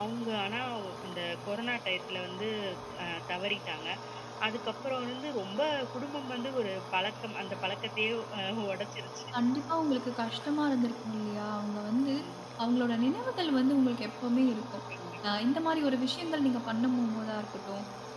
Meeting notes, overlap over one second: none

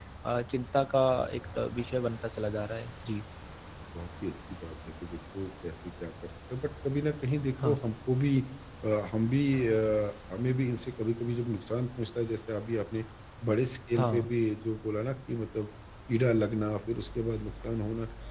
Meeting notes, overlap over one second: none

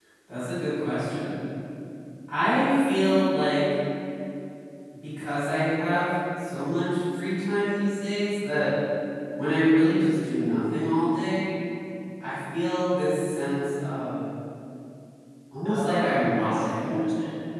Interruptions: present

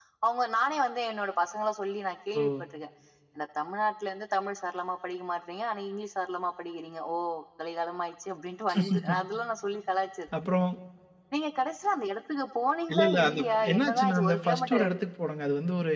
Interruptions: present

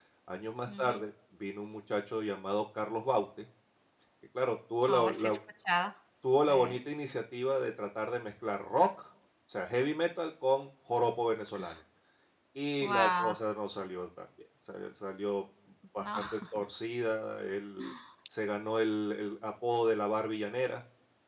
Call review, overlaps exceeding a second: none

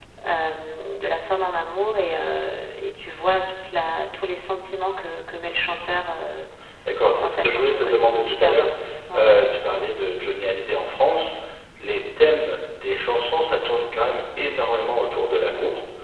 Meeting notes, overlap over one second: present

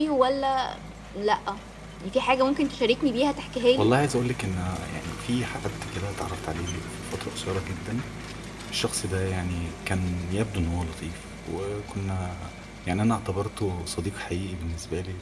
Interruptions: none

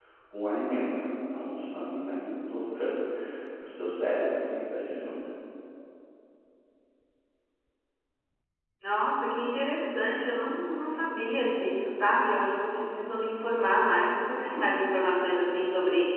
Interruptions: none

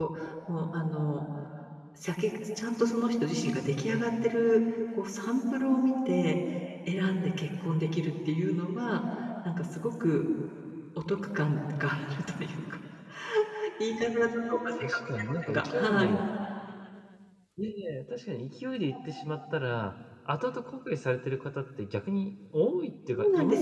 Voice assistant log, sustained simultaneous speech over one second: present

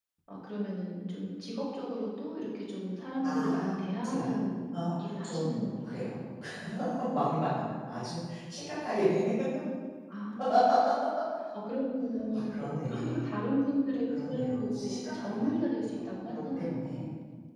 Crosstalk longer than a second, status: present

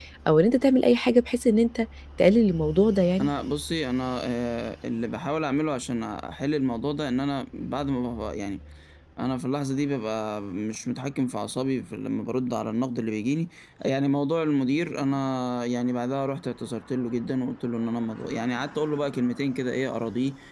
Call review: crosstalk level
none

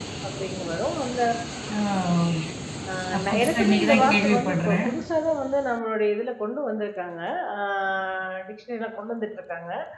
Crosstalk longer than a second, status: present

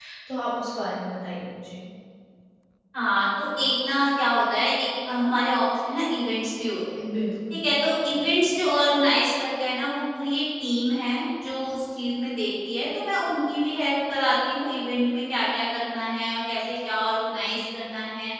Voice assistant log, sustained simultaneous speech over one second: none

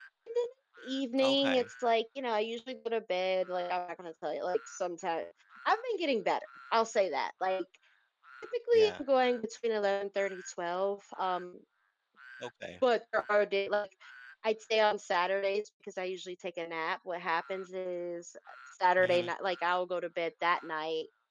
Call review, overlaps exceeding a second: none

